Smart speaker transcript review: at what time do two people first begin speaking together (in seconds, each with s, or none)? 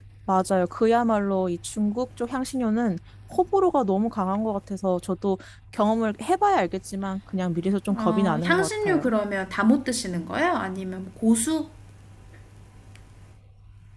7.9 s